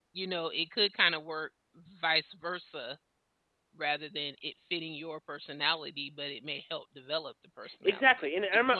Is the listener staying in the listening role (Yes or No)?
No